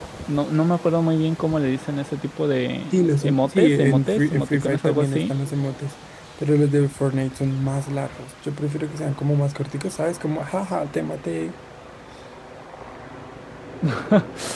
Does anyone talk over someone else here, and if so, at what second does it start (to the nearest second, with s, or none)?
3 s